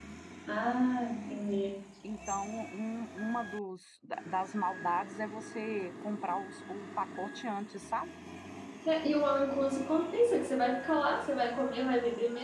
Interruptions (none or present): none